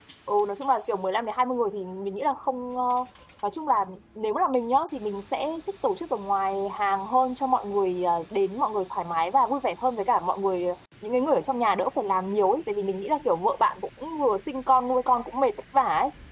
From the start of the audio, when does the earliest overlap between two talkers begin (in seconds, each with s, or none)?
none